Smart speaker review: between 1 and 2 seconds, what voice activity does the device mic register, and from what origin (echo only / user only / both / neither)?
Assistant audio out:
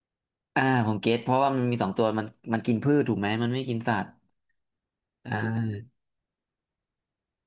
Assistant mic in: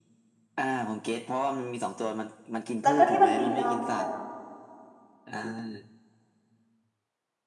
echo only